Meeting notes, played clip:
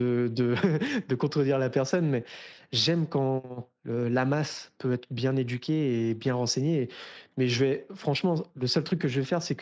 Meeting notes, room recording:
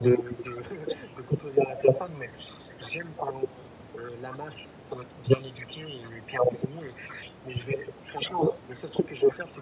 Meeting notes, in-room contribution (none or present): none